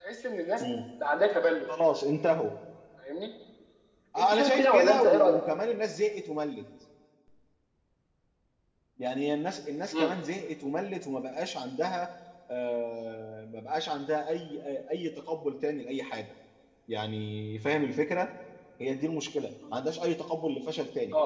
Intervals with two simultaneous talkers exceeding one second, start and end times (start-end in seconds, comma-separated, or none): 4.2-5.4